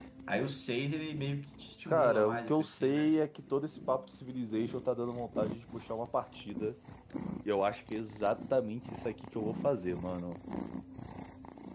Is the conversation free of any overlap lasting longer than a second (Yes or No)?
No